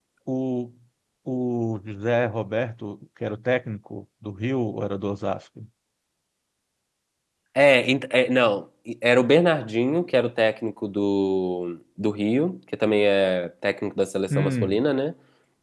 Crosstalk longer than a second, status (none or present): none